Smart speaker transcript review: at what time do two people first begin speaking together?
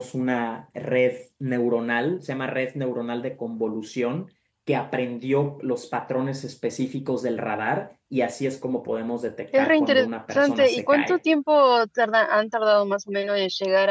9.5 s

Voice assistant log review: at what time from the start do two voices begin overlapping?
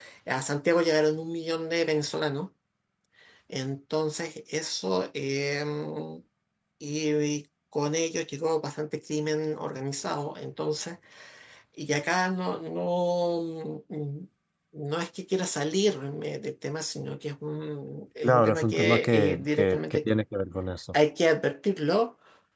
18.2 s

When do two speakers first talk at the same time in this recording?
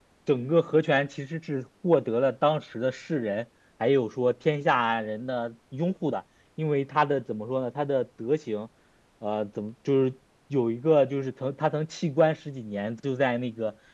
none

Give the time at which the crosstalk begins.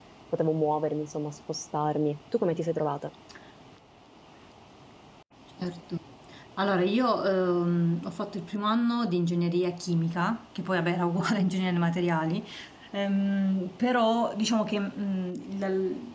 none

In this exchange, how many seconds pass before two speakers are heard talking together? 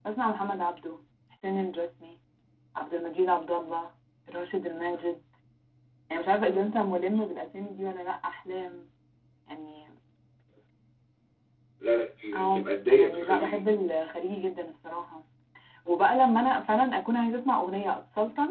12.3 s

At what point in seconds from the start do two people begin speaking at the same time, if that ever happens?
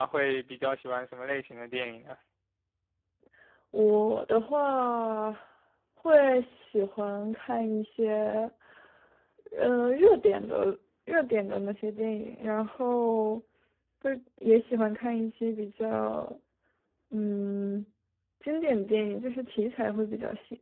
none

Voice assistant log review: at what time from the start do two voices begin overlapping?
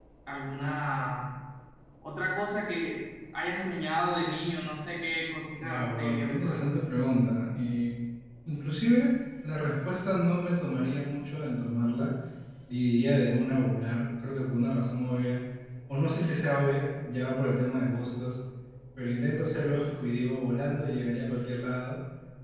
5.6 s

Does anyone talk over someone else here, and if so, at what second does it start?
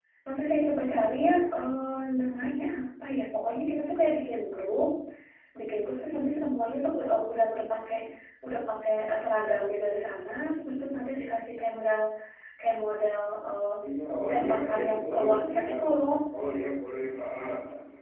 14.3 s

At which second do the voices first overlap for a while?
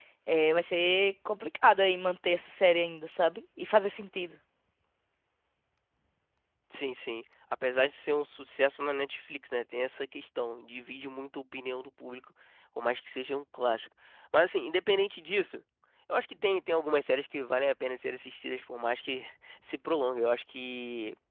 none

